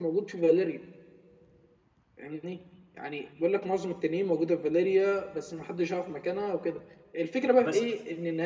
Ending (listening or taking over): listening